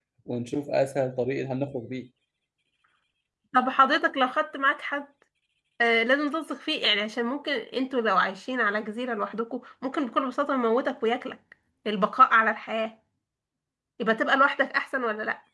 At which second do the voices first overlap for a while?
none

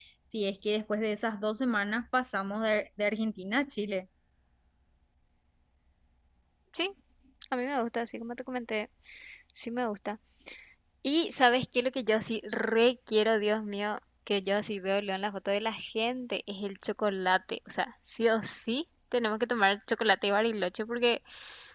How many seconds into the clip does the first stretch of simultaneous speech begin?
none

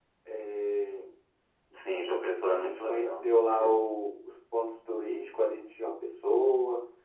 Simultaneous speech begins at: 2.5 s

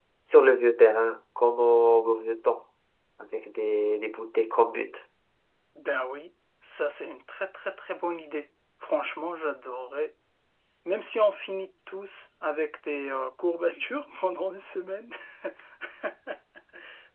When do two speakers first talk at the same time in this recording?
none

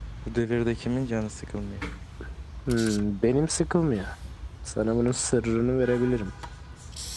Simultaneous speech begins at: none

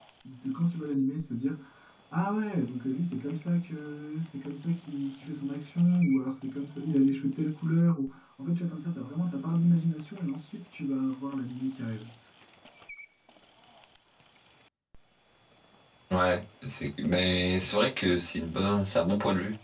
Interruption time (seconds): none

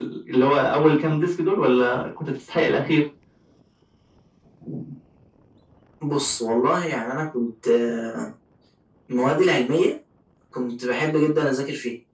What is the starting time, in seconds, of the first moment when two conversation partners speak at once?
none

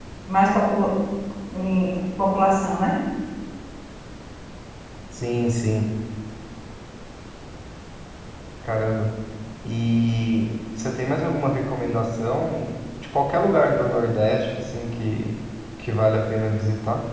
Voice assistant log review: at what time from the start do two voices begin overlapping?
none

